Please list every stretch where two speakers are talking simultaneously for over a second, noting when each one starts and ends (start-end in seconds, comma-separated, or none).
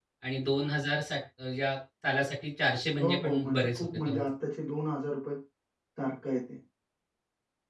3.0-4.2